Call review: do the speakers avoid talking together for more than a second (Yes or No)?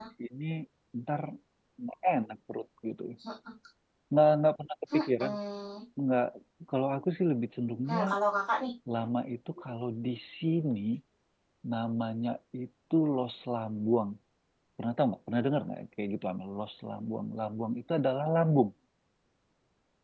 Yes